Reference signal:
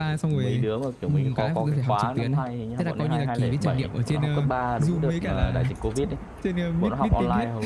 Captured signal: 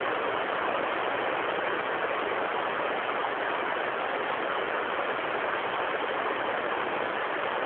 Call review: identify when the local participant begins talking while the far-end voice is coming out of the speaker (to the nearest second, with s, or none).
none